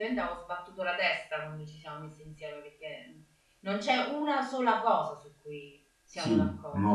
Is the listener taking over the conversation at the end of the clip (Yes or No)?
Yes